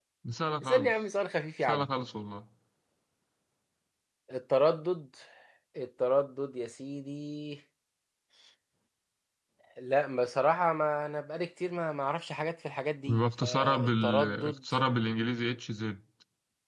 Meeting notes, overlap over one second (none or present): present